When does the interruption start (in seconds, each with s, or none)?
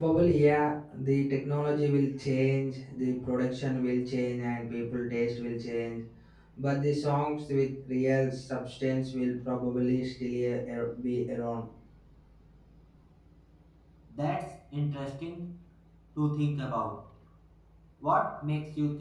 none